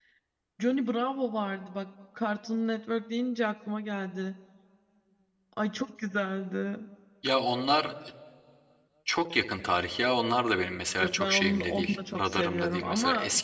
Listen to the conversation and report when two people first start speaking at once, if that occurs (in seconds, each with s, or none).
11.0 s